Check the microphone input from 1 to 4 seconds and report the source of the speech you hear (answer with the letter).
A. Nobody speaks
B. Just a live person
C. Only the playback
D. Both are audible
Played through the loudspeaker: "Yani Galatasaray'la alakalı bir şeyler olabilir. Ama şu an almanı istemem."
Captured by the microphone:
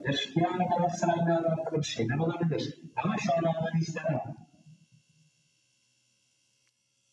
C